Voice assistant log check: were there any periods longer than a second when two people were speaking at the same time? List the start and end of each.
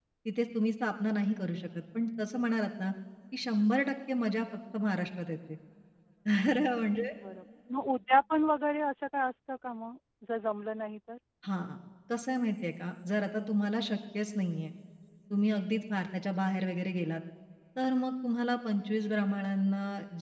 none

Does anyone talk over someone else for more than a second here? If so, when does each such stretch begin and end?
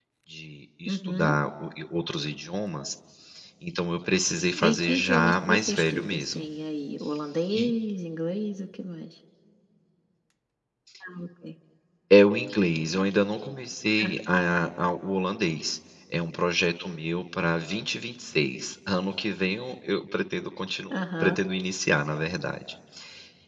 4.7-6.4

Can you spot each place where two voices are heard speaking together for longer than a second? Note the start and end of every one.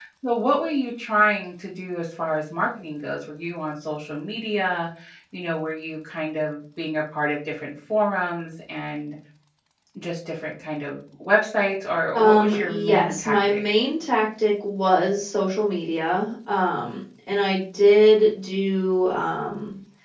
12.2-13.6

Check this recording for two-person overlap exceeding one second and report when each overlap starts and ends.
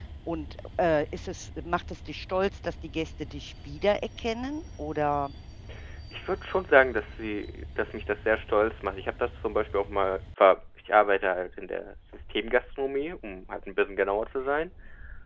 none

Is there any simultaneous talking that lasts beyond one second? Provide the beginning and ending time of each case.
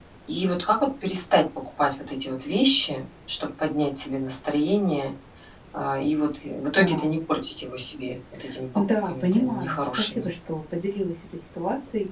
9.0-10.3

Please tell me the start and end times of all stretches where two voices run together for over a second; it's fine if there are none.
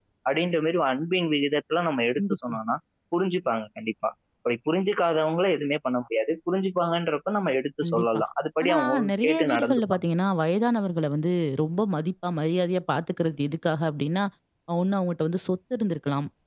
8.6-10.1

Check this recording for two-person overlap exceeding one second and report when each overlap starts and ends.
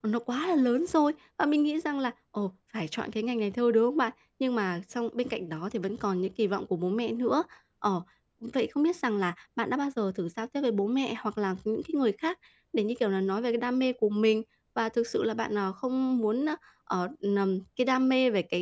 none

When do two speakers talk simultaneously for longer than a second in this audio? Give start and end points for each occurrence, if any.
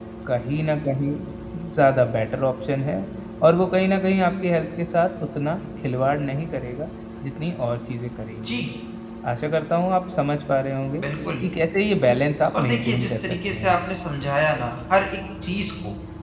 12.6-13.8

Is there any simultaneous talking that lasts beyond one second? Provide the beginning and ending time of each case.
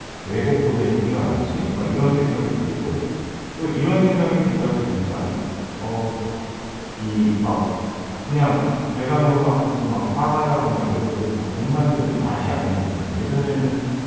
none

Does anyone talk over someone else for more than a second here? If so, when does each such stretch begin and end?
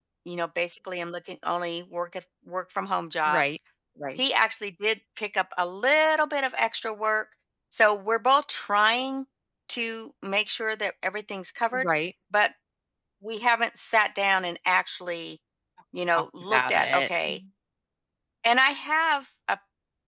16.1-17.4

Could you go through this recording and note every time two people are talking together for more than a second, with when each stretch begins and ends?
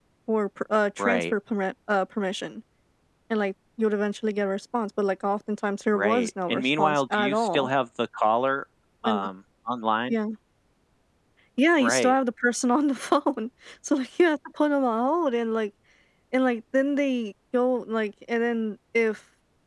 5.9-7.7

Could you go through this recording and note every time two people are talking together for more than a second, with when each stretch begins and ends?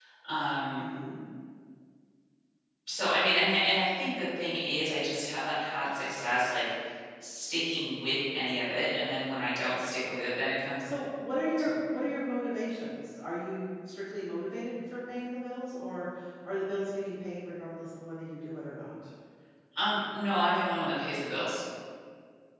none

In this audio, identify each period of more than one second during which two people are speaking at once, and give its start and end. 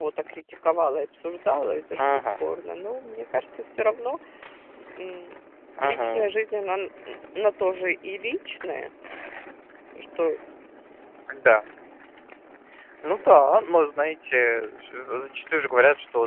none

